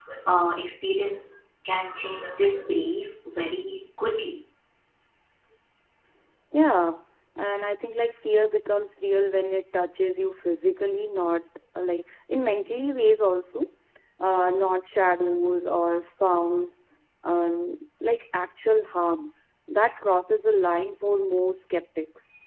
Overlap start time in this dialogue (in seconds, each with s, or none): none